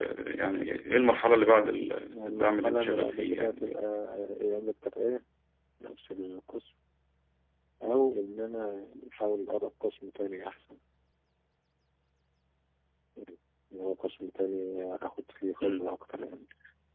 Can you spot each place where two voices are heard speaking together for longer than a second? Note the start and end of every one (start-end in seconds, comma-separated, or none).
2.0-3.8